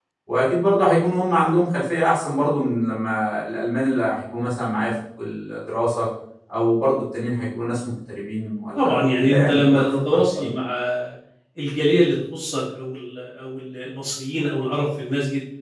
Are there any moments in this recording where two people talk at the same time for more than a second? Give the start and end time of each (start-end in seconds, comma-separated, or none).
8.8-10.5